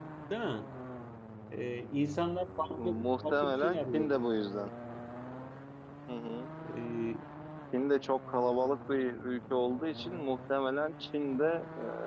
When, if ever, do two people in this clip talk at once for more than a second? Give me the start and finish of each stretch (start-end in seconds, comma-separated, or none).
3.0-4.2